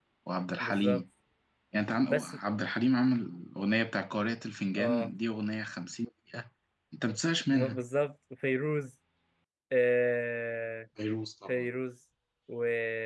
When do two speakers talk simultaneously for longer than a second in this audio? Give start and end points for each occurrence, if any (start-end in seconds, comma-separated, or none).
none